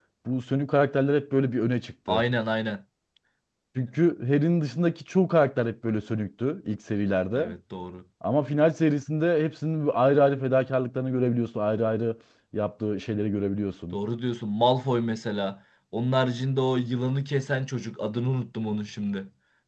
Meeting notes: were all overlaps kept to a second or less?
Yes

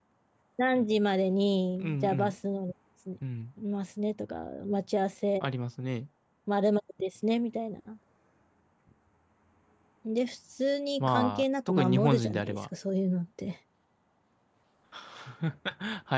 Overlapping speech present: Yes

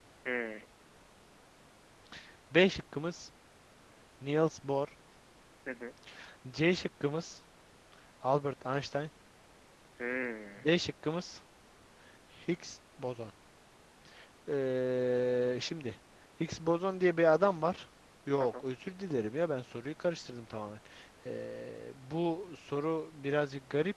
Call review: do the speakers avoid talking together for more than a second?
Yes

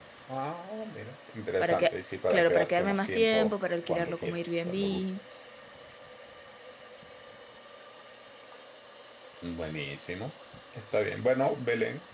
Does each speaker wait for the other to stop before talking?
No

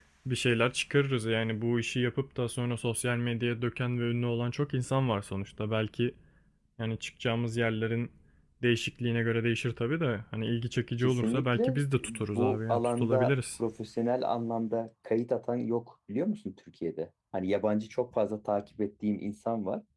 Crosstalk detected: Yes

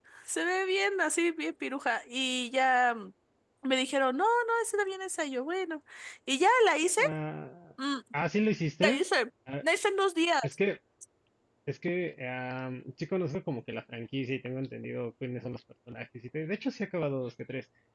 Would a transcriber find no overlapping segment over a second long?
Yes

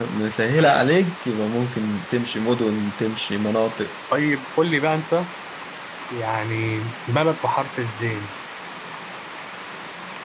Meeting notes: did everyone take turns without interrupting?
Yes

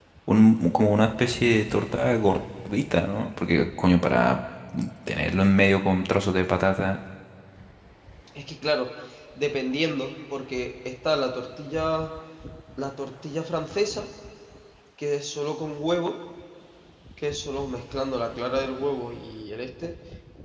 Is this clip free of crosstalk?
Yes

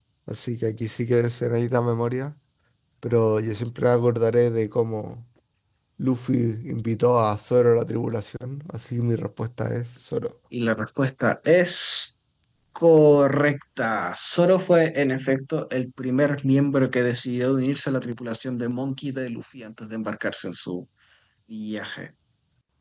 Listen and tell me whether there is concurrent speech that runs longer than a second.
No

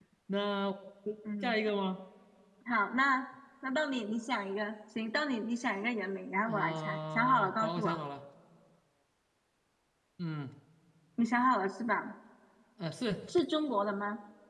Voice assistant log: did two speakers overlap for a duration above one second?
Yes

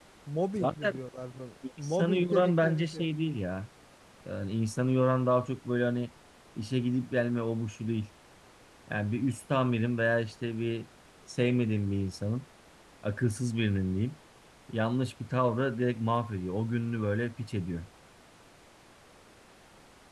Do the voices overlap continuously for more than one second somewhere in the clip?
Yes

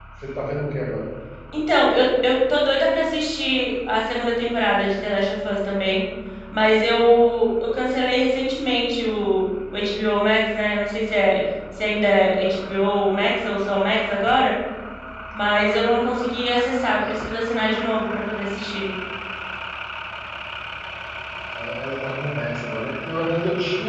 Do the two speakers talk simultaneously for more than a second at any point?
No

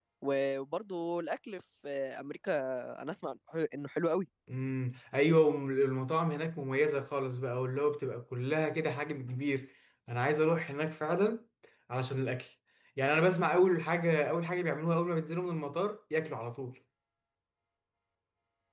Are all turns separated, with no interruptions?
Yes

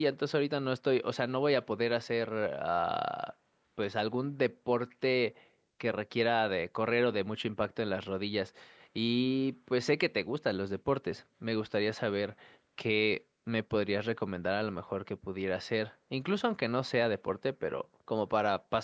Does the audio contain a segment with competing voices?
No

